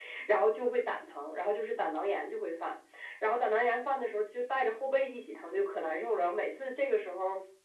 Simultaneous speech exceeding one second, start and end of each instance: none

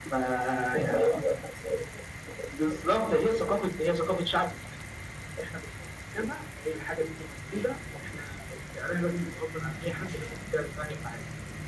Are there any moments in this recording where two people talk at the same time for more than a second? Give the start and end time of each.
none

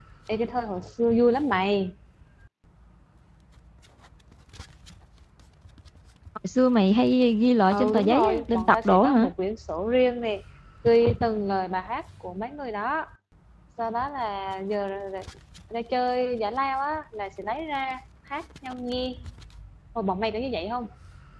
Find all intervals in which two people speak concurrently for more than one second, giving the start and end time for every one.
7.7-9.3

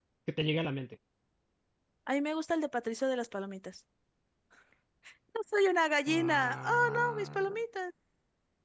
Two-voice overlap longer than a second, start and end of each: 6.1-7.6

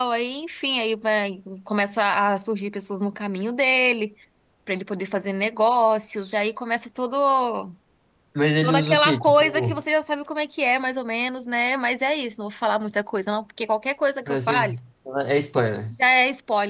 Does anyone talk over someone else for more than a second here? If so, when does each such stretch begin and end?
8.6-9.8

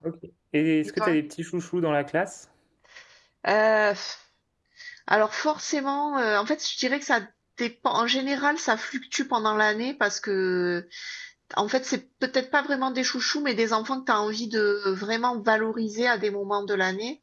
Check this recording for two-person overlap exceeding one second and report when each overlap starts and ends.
none

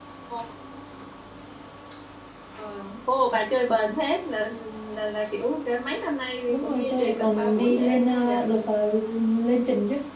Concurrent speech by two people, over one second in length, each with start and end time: 6.5-8.4

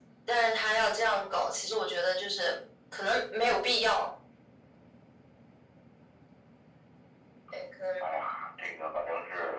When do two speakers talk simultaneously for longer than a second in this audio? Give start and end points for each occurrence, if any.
none

